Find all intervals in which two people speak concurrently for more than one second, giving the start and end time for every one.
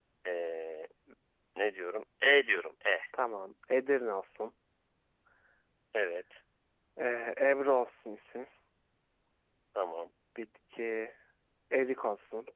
none

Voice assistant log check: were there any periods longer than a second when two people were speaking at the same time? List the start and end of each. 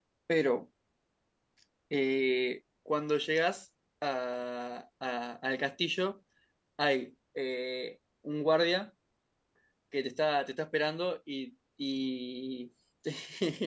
none

